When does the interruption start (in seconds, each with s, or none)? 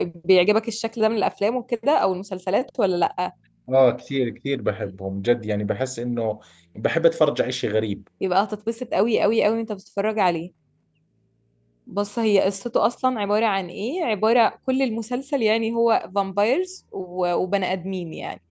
none